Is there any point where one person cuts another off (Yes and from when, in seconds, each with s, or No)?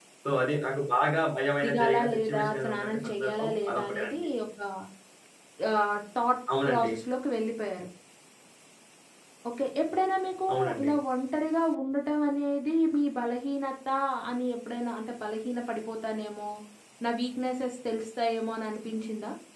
Yes, from 1.6 s